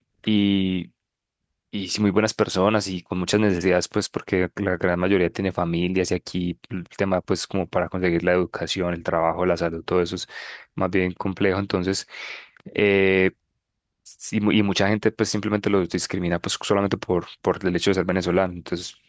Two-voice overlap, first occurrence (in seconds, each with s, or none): none